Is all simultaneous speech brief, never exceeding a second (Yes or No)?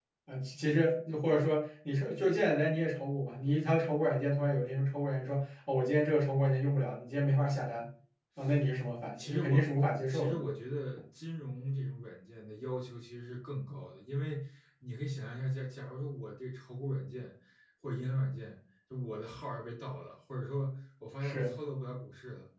Yes